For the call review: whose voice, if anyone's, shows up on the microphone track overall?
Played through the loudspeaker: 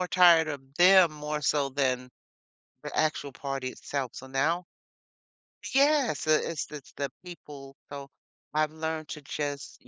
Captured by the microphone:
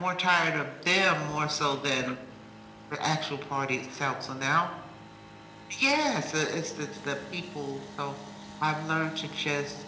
echo only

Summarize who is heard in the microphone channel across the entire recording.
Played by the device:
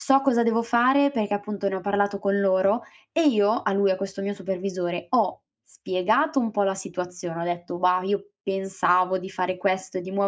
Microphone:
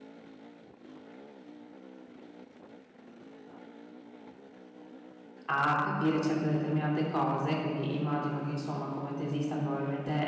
user only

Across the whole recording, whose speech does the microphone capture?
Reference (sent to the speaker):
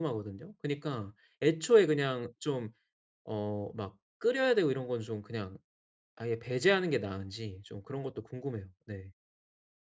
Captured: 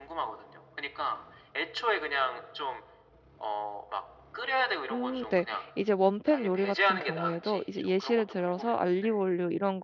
both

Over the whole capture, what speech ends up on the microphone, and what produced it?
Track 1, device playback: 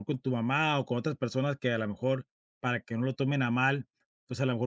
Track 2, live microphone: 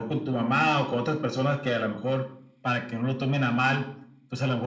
echo only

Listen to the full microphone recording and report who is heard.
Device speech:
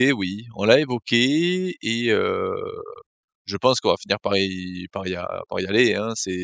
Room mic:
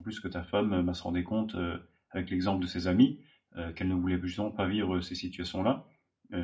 user only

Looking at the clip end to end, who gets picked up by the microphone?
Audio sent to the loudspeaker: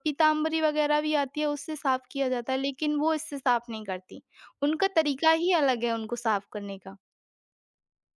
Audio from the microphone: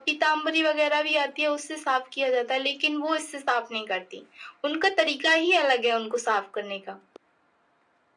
echo only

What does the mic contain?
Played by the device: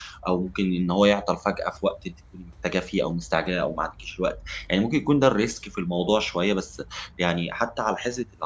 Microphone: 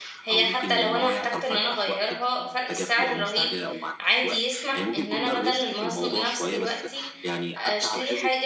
both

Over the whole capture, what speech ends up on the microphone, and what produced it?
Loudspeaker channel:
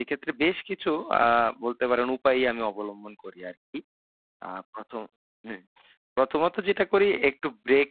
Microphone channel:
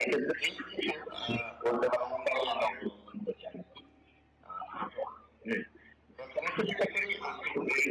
echo only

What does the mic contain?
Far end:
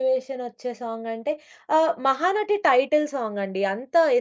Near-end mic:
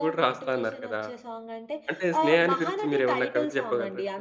both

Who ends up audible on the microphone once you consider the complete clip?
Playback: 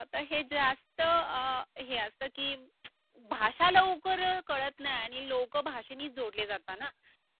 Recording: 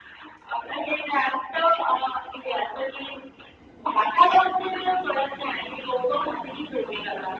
echo only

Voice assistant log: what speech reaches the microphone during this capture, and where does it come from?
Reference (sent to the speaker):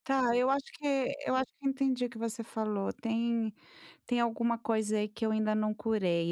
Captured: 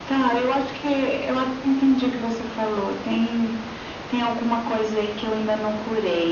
echo only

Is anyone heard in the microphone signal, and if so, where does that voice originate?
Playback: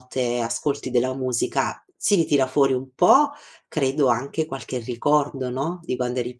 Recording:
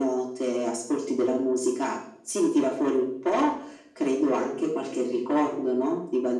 echo only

